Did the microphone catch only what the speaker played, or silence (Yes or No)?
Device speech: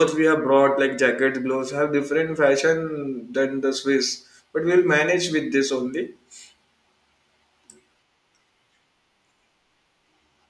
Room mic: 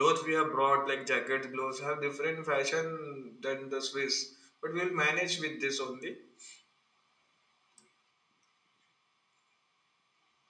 Yes